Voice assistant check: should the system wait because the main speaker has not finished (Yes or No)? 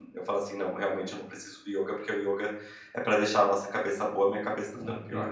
No